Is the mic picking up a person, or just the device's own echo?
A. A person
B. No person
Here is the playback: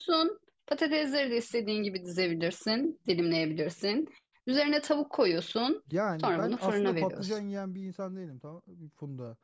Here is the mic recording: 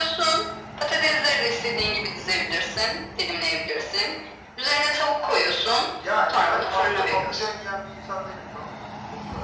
B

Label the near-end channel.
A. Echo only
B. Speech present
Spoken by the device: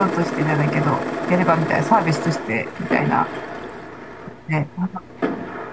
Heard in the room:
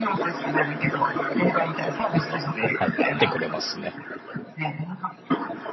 B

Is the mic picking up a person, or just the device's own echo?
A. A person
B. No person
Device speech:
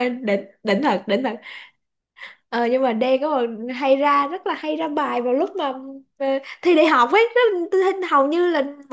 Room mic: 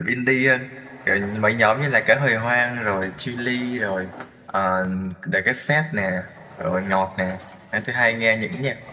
A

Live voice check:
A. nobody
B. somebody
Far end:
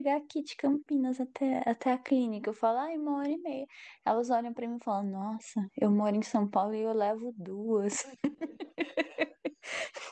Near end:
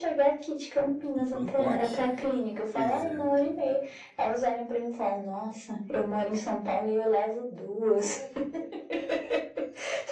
B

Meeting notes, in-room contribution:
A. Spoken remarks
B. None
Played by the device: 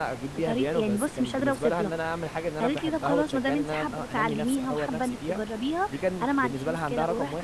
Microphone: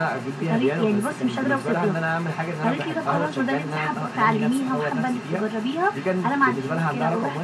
B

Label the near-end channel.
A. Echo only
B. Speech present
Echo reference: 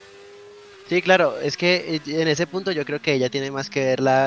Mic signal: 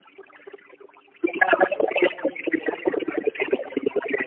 A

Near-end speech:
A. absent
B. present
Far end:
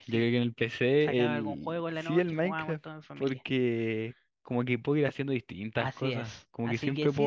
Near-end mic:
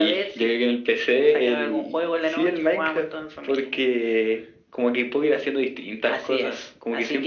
A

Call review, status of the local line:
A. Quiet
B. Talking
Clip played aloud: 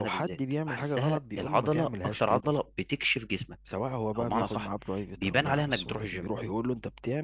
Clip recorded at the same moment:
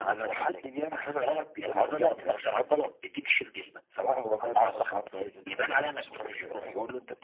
A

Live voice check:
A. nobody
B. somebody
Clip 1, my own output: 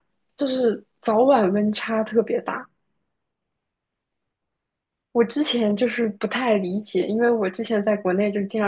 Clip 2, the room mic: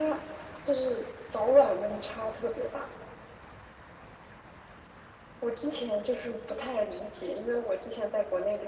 A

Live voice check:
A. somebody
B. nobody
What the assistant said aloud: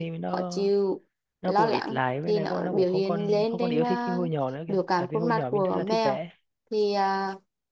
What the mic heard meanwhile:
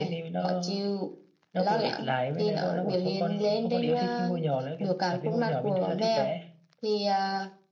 B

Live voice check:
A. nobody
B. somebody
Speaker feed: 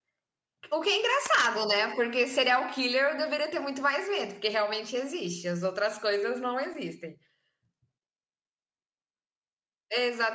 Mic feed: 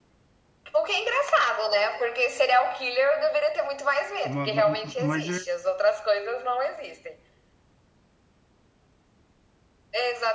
B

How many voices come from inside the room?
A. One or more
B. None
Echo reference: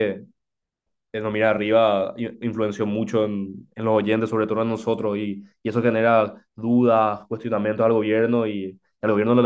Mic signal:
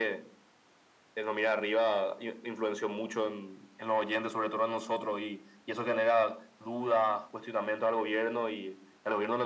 B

